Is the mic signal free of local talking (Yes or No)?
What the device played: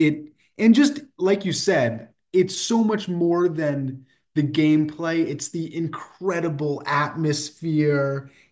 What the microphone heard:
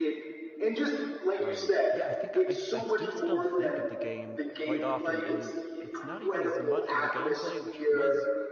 No